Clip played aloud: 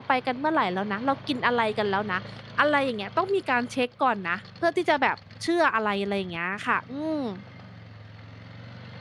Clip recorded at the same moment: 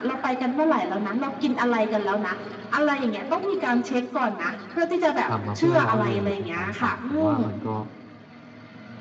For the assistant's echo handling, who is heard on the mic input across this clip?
both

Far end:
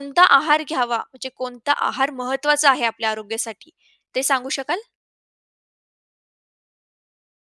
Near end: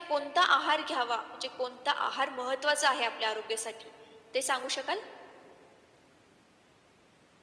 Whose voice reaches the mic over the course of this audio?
echo only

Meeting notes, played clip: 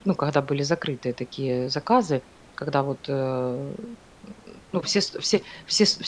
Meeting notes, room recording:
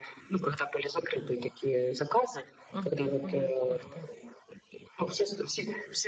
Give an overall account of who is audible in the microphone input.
both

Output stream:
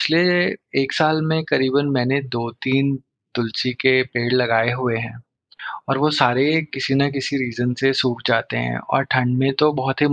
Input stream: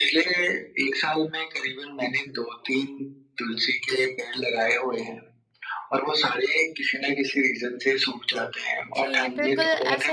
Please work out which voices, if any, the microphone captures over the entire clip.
both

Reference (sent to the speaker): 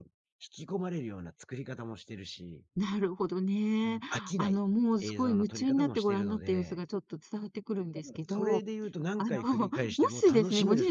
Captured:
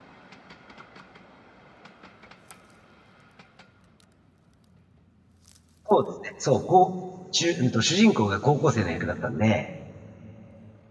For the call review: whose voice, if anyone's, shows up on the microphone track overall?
user only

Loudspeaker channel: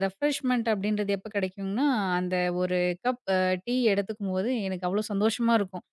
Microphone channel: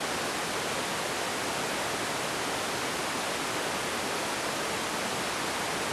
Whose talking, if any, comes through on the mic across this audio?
neither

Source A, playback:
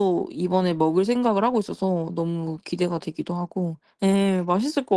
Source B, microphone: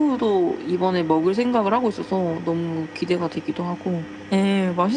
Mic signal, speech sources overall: echo only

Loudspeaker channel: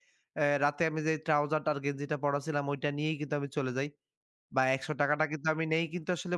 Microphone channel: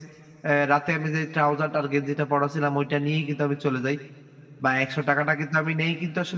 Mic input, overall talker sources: echo only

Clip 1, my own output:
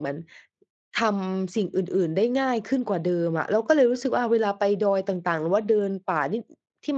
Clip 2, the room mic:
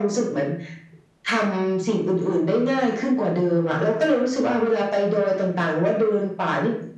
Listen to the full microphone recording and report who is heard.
echo only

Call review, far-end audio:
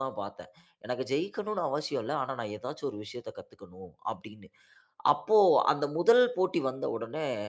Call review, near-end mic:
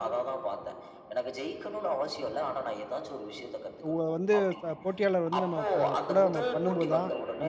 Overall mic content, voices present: both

